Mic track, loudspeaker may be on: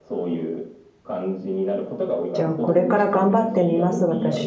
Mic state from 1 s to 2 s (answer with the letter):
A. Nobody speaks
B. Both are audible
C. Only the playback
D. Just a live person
C